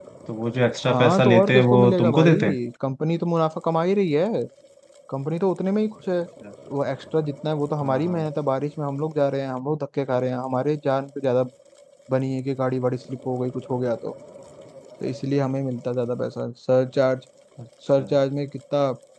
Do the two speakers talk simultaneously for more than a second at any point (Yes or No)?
Yes